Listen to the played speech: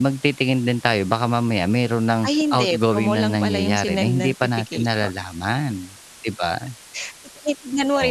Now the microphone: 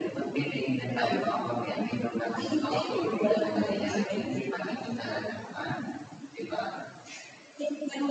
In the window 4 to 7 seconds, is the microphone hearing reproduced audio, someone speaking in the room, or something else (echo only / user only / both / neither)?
echo only